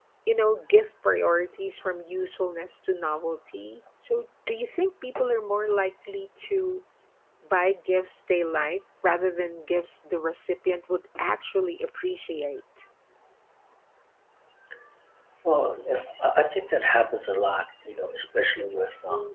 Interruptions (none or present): none